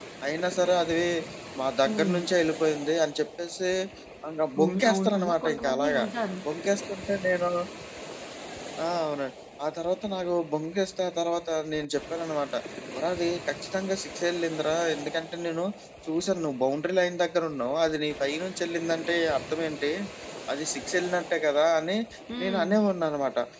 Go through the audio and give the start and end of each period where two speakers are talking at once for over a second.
4.6-6.0

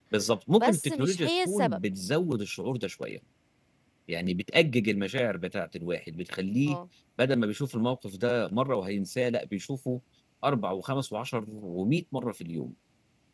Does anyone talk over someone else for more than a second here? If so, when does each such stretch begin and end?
0.5-1.8

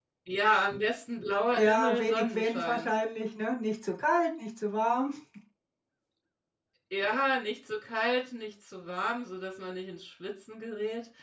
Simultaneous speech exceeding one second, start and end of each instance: 1.6-2.9

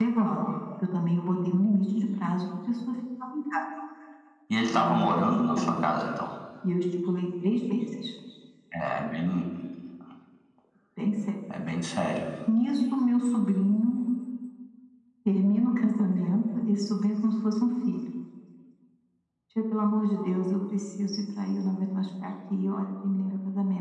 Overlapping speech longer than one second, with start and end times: 4.7-5.9

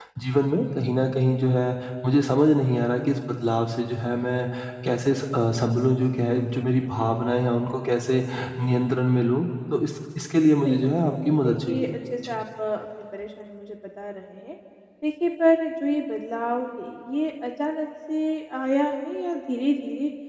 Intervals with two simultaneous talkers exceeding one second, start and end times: 10.6-11.9

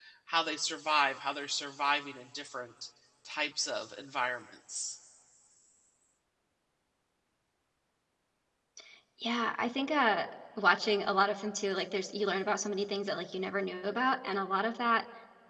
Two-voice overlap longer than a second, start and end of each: none

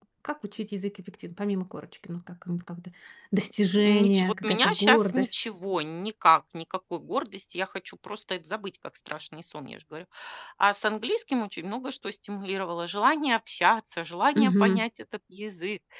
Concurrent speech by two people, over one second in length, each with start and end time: 3.4-5.3

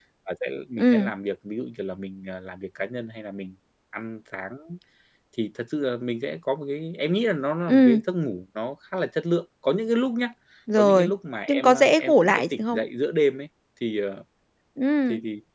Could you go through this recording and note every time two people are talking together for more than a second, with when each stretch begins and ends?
11.5-12.8

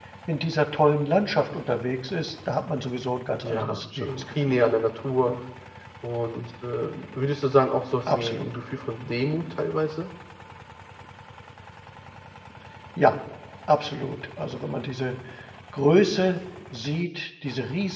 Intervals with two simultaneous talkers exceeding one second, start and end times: 3.4-4.7

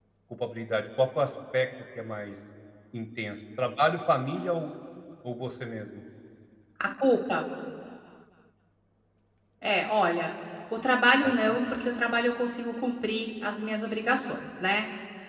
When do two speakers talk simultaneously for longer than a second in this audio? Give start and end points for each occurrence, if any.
none

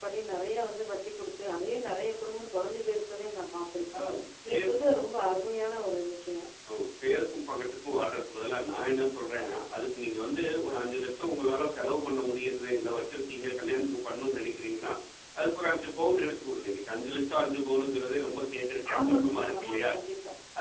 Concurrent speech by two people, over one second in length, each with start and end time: none

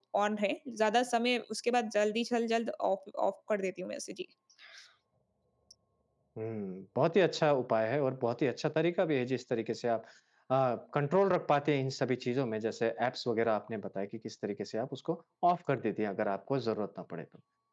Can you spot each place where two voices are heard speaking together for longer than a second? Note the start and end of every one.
none

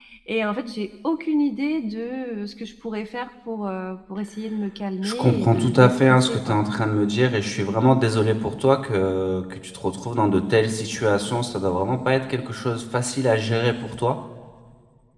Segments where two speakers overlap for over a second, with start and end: 5.0-6.6

